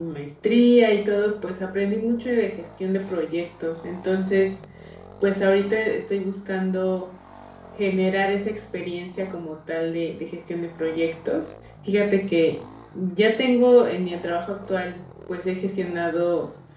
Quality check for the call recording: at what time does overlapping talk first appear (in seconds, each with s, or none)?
none